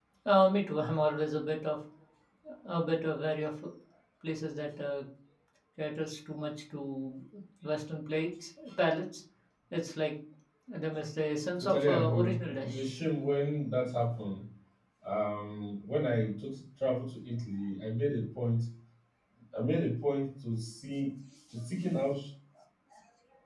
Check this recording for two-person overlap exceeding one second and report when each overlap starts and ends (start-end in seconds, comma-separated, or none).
11.6-12.9